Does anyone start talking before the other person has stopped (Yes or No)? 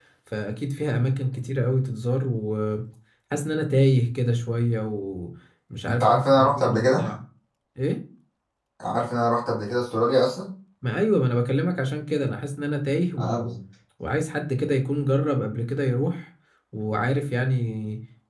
Yes